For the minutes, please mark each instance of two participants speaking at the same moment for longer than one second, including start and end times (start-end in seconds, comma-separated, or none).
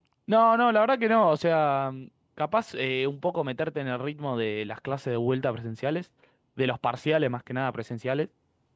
none